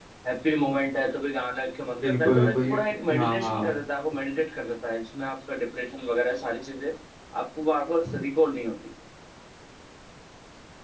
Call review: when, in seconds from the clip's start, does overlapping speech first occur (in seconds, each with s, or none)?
2.0 s